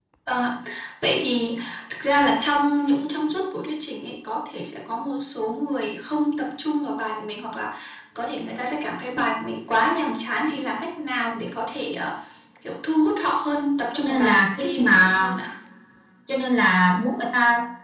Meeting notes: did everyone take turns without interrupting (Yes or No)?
No